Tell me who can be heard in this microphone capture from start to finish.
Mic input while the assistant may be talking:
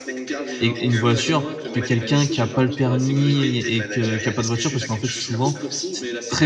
both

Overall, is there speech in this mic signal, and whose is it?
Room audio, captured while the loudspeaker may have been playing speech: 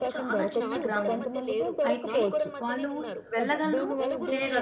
both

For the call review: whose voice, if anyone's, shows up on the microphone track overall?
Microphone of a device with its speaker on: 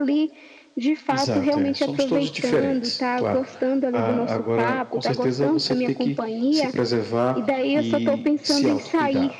both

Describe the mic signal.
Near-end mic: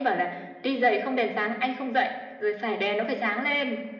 echo only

